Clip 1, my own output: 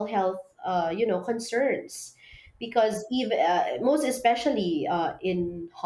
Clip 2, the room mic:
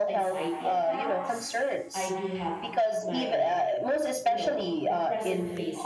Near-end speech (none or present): present